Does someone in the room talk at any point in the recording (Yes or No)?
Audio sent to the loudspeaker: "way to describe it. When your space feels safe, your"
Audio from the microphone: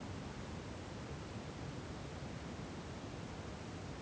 No